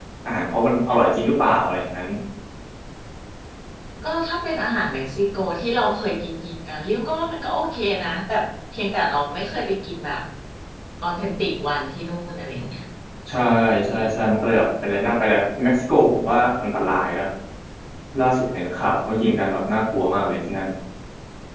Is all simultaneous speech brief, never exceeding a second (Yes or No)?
Yes